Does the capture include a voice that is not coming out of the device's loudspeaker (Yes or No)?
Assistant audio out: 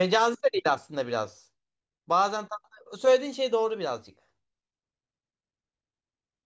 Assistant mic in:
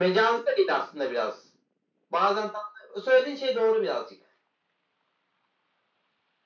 No